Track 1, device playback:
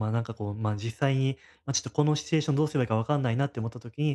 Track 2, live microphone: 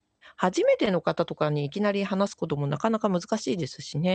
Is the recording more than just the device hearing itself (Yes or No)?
Yes